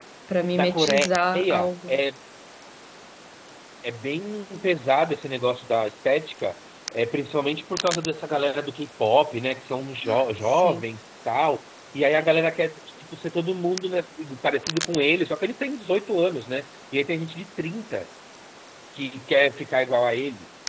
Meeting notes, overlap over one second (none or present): present